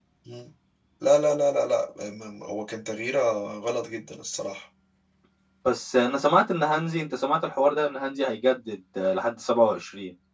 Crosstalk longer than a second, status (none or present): none